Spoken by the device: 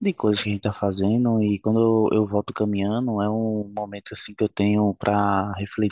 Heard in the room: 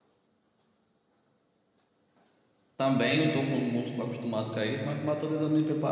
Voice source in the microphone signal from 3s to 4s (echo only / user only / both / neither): user only